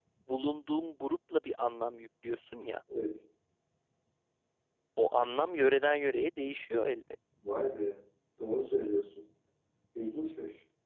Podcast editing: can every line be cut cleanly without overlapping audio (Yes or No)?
Yes